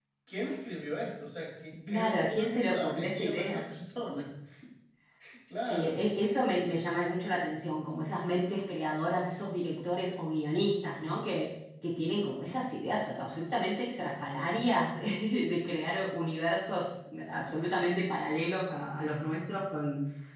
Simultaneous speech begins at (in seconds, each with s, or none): 1.9 s